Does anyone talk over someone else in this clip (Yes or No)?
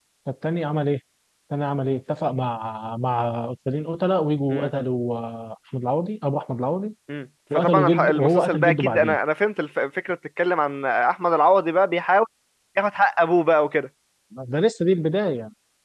Yes